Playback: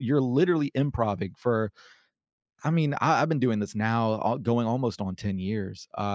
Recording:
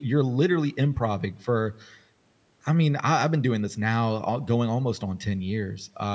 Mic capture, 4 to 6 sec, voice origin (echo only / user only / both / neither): echo only